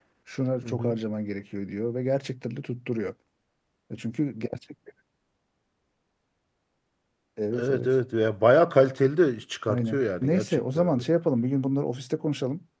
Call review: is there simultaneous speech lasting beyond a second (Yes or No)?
Yes